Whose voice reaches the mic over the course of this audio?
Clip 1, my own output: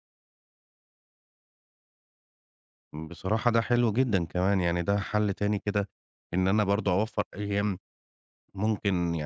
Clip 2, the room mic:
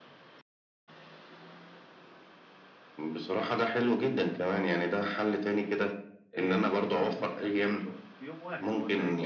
both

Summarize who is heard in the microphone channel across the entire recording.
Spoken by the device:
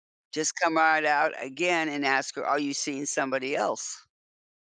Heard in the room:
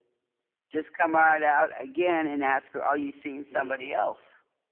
both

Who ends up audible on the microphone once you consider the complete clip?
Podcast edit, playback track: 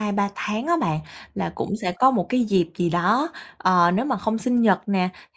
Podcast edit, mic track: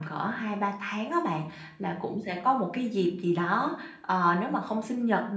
echo only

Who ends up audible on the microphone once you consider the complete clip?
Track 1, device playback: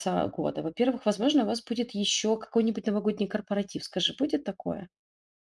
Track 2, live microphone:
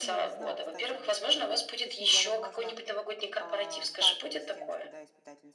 both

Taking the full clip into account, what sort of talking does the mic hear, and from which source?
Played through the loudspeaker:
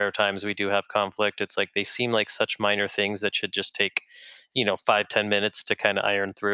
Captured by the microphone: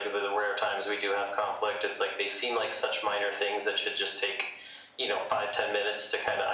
echo only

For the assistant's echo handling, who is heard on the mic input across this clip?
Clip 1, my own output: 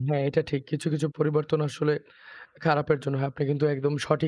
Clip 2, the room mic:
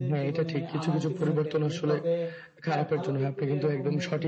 both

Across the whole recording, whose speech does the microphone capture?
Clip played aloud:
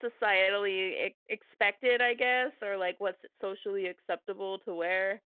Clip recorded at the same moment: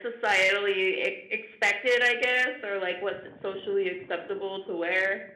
echo only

